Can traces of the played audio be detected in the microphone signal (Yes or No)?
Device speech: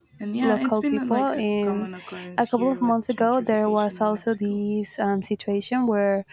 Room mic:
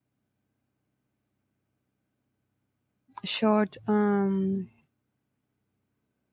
No